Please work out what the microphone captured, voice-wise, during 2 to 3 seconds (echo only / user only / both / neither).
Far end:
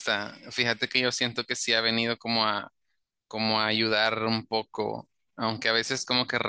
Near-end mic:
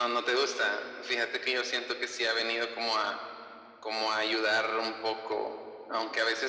echo only